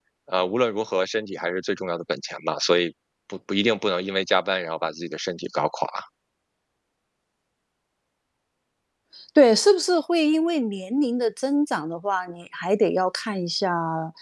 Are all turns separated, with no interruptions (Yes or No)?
Yes